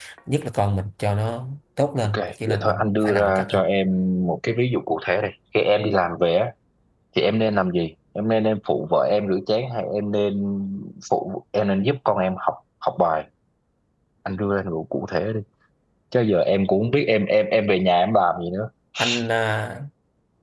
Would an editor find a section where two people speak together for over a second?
Yes, from 2.1 s

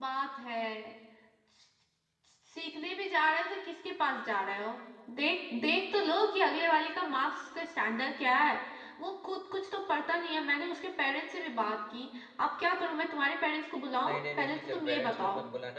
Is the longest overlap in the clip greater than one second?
Yes, from 14.0 s

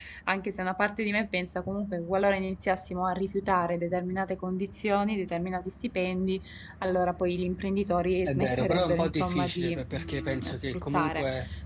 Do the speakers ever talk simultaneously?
Yes, from 8.2 s

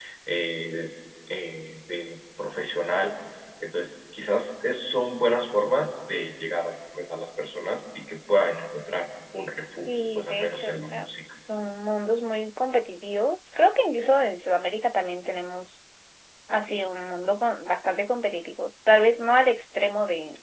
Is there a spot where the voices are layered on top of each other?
Yes, from 9.8 s

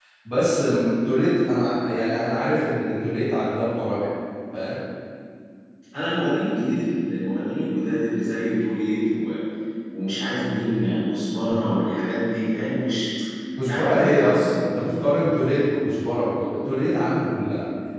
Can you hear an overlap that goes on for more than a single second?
Yes, from 13.7 s

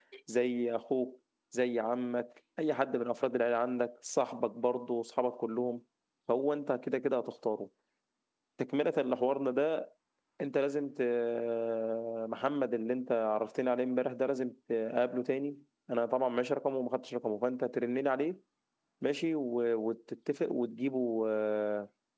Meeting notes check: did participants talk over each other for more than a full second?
No

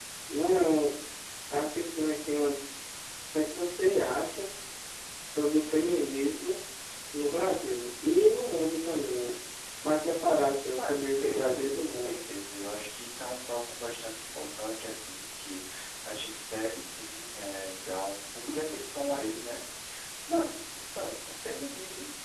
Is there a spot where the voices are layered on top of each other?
Yes, from 10.7 s

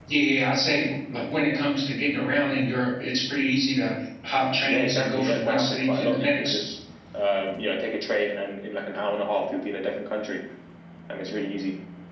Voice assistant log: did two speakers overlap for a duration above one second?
Yes, from 4.6 s

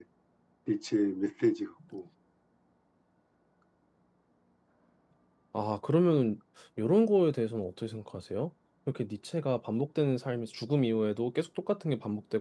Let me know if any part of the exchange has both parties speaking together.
No

